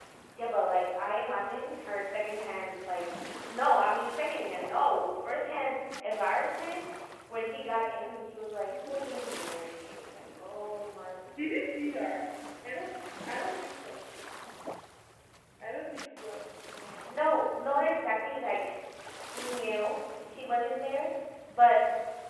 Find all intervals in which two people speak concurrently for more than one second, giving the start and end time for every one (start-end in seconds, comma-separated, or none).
none